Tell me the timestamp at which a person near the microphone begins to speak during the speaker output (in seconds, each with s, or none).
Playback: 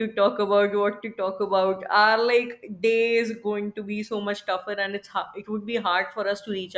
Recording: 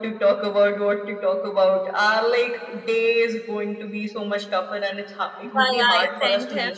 5.4 s